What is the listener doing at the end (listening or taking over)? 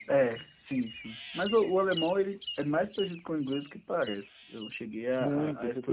taking over